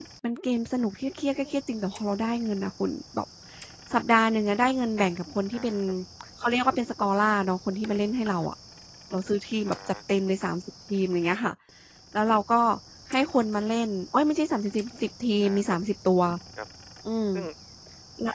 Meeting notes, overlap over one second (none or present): none